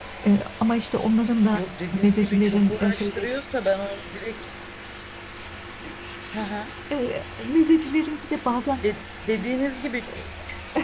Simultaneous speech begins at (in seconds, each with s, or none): 2.0 s